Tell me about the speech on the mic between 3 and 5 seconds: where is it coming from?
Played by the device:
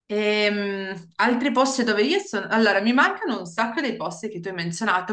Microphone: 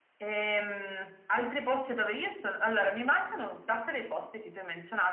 echo only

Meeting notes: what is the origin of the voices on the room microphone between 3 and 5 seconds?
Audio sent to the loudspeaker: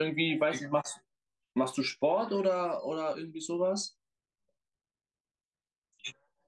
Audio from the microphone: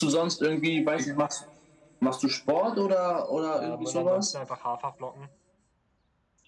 both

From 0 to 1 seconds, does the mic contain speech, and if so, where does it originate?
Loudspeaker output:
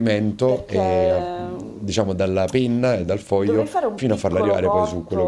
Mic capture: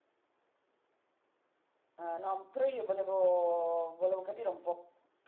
neither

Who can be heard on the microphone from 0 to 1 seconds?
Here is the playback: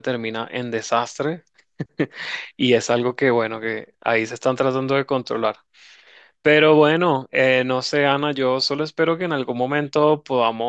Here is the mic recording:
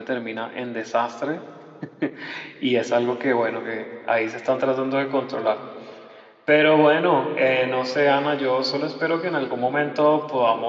echo only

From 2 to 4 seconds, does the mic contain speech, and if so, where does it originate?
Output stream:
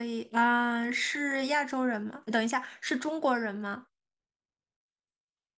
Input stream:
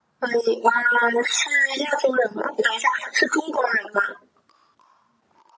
echo only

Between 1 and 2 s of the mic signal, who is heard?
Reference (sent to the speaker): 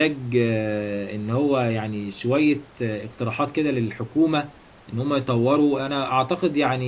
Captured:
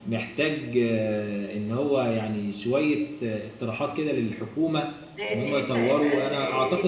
echo only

